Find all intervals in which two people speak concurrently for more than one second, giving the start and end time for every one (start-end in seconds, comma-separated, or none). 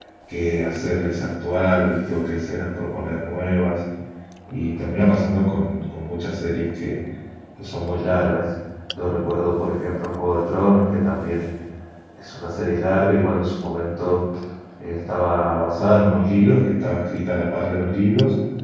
none